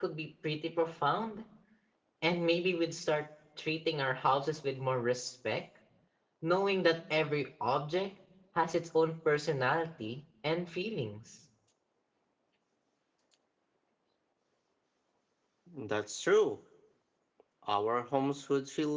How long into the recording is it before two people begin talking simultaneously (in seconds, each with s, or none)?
none